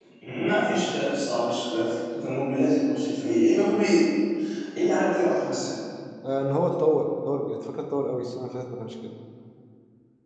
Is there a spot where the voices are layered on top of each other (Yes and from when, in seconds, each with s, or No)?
No